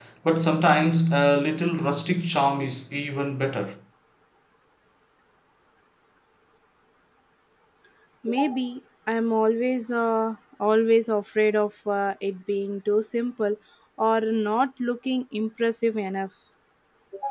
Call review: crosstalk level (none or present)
none